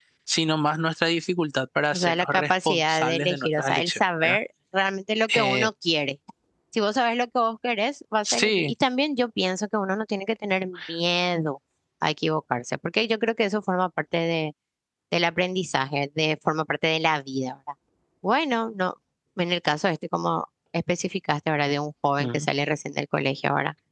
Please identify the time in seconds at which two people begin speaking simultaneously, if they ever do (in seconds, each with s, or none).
1.9 s